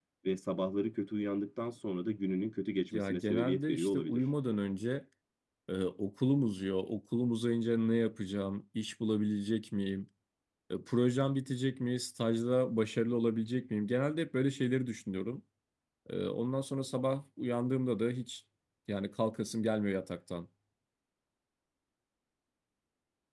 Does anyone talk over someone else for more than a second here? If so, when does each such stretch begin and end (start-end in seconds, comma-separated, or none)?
2.9-4.2